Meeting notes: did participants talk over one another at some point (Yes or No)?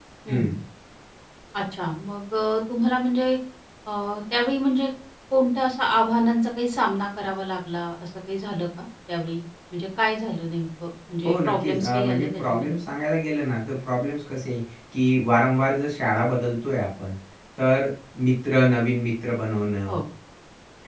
Yes